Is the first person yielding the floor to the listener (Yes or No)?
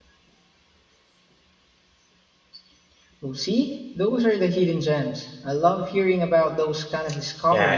Yes